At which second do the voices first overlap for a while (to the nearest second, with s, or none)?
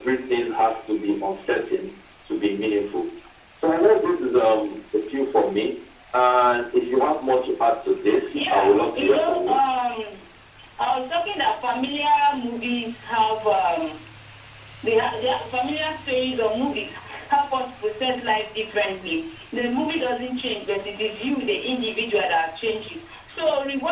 8 s